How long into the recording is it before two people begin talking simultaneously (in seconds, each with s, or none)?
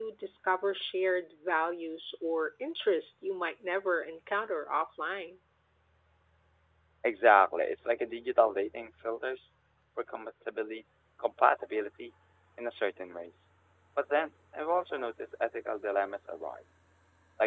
none